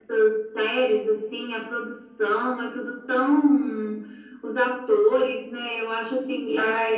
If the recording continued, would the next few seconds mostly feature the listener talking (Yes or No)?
No